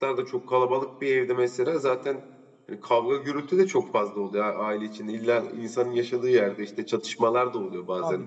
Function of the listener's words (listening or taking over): taking over